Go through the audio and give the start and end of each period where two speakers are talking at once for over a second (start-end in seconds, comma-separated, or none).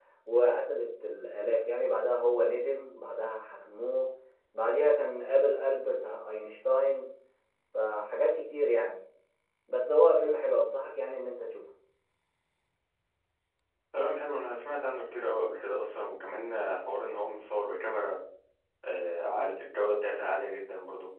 none